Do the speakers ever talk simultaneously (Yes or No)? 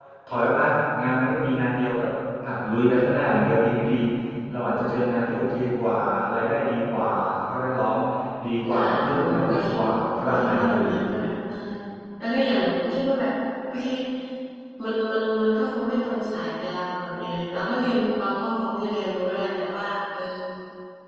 Yes